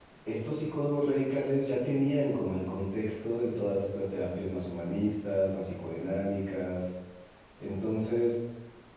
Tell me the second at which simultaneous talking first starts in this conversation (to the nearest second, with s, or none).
none